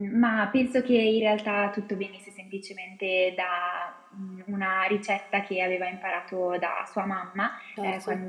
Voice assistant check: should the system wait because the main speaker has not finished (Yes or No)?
Yes